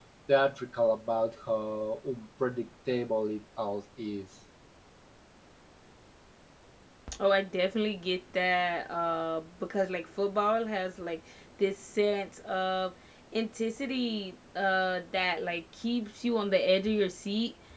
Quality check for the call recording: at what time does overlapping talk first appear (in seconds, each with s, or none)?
none